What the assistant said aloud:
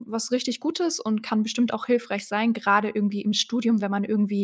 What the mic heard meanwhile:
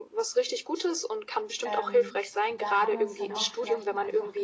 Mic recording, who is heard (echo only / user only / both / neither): both